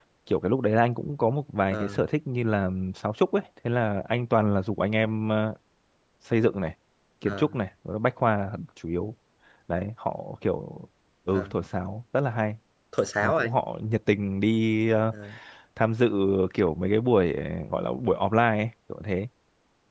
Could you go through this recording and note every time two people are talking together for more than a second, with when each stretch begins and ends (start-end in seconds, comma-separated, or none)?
none